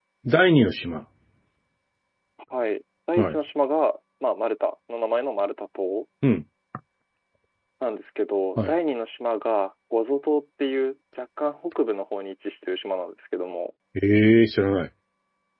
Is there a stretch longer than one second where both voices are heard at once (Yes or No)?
No